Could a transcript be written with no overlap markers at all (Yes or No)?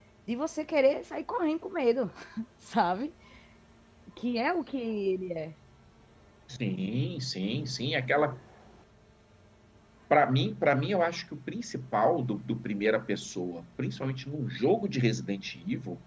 Yes